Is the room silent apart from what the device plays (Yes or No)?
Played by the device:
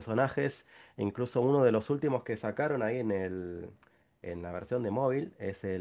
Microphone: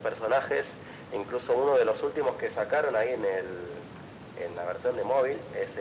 Yes